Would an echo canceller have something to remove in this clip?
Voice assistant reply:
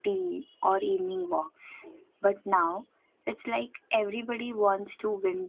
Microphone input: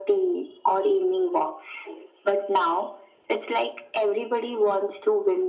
Yes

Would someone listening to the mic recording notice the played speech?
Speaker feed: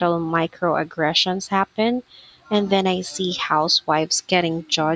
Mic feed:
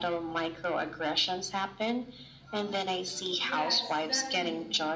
Yes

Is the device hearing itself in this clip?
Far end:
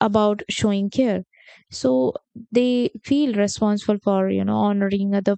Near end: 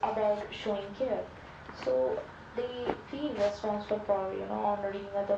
Yes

